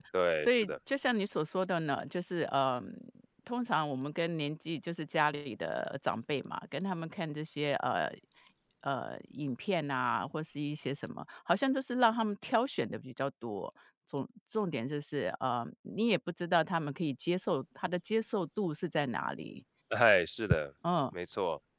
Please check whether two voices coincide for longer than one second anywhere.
No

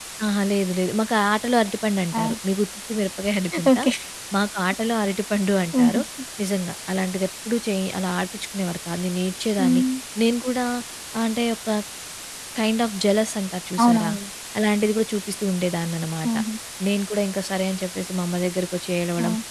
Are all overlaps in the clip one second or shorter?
Yes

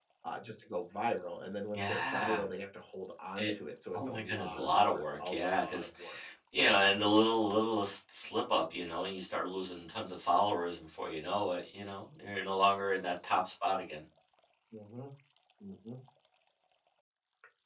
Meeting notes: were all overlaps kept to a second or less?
No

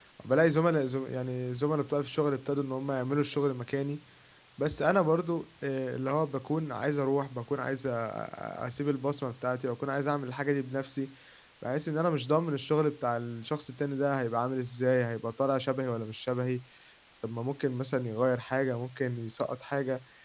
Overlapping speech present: No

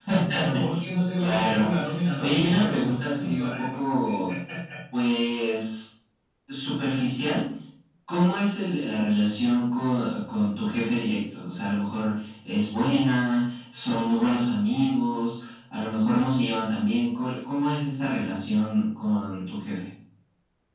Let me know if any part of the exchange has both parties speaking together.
Yes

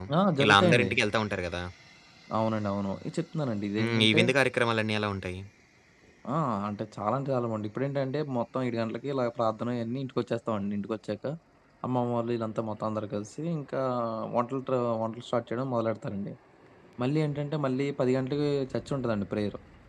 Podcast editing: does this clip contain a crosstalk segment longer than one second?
No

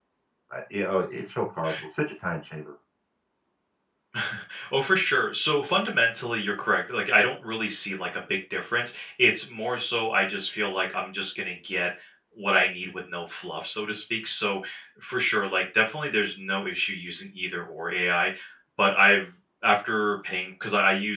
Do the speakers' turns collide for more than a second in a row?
No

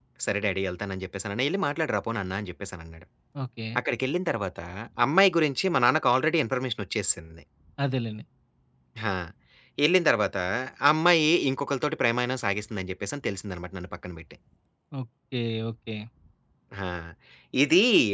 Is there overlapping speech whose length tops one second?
No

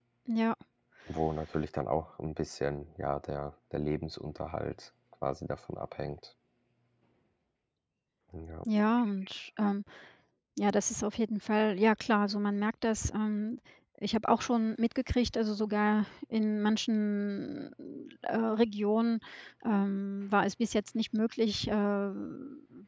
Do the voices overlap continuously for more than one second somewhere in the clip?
No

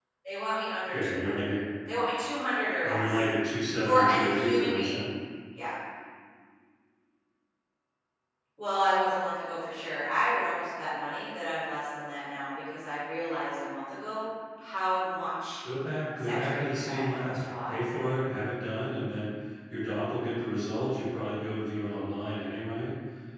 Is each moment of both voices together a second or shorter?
No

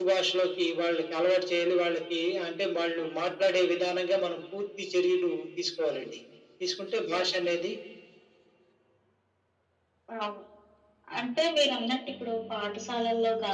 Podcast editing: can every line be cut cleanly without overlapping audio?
Yes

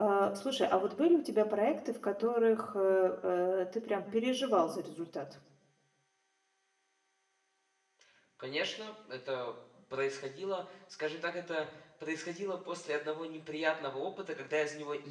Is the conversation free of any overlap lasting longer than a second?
Yes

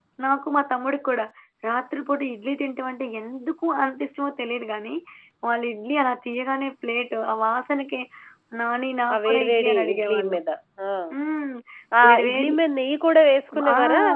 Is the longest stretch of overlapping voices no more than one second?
No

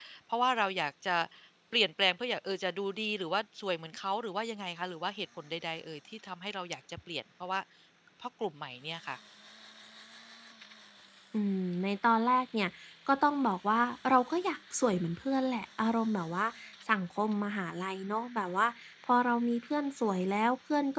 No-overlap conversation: Yes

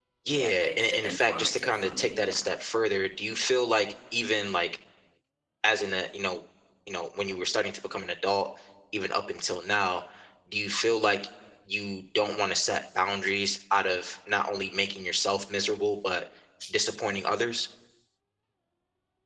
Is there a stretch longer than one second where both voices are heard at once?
Yes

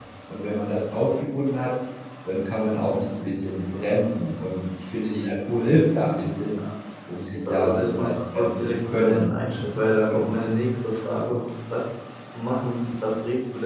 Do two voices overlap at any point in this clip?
Yes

